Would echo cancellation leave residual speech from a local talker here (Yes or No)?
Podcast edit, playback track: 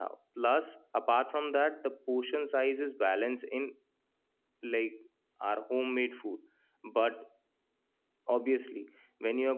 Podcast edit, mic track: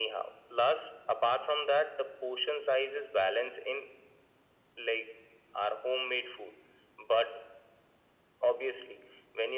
No